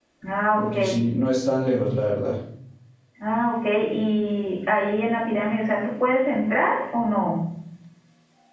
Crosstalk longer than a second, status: none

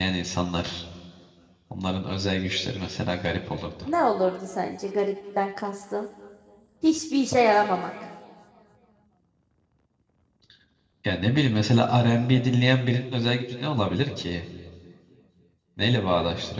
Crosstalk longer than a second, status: none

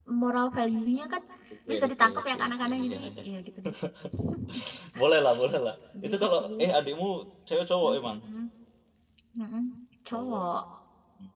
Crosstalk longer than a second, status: present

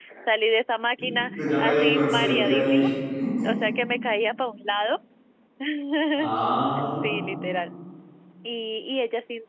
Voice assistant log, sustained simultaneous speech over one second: present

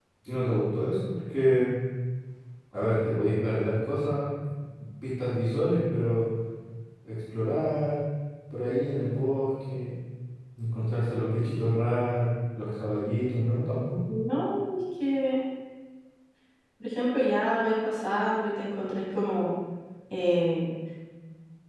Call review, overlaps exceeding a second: none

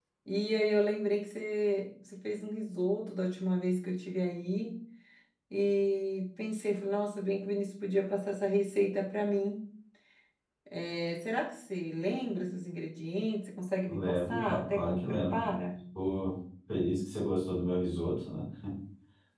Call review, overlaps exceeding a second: present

